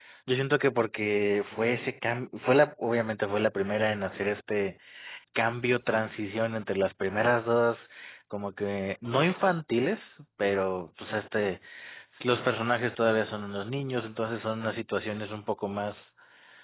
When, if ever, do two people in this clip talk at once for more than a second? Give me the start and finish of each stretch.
none

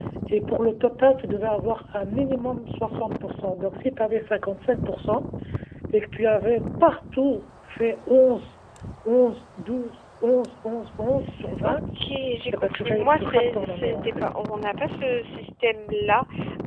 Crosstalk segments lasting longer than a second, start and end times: 12.6-14.2

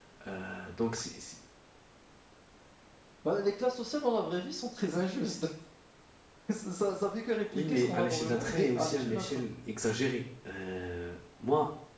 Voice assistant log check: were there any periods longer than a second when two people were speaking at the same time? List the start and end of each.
7.5-9.4

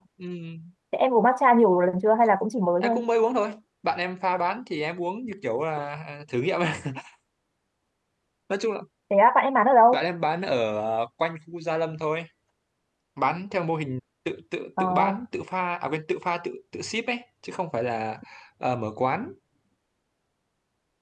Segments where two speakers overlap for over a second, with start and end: none

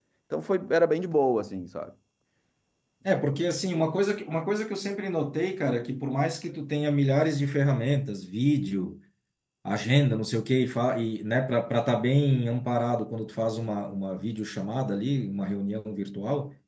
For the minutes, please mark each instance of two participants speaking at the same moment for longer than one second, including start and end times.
none

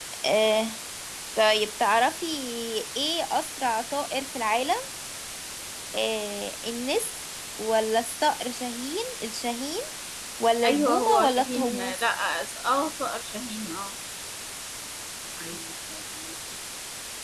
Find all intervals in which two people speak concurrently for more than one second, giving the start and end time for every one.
10.7-12.0

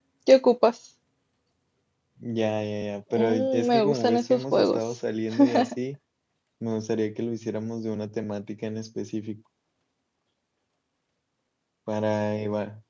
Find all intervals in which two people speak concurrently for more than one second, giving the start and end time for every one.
3.2-4.8

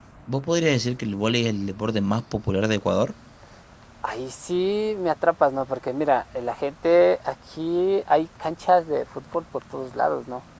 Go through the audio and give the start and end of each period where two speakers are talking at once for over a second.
none

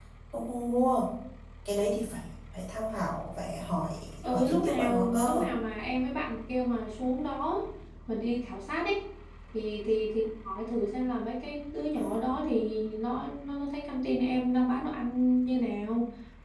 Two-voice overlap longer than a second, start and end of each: 4.2-5.4

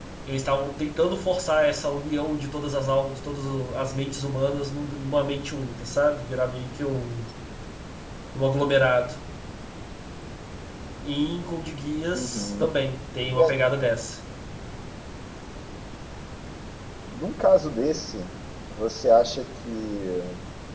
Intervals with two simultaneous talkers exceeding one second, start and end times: none

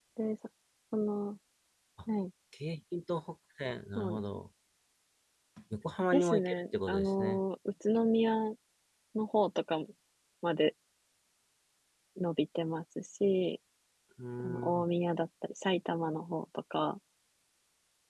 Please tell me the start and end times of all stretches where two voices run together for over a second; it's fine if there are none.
6.1-7.4

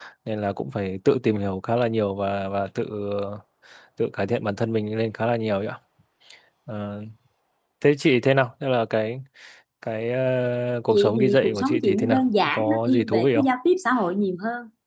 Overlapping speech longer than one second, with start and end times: 10.9-13.5

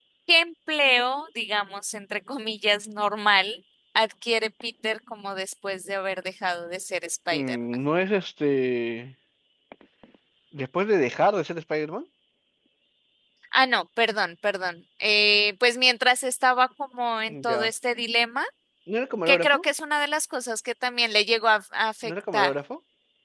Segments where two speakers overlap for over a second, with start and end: none

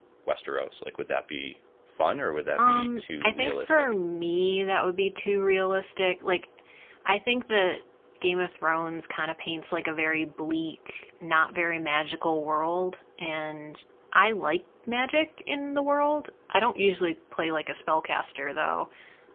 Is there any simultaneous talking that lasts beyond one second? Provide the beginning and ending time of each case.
2.6-3.9

